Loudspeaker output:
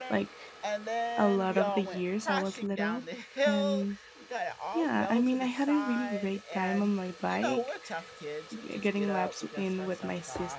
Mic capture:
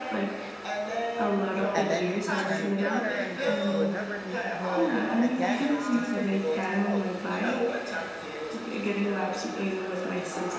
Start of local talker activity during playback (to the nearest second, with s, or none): 2 s